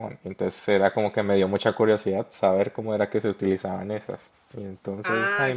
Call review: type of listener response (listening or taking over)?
taking over